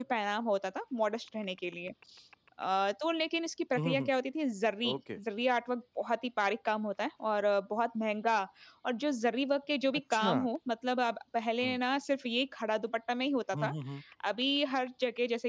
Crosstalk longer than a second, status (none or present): none